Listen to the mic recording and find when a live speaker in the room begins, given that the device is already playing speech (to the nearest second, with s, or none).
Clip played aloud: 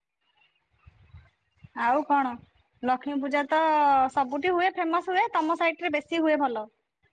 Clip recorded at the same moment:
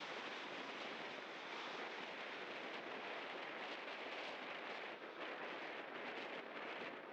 none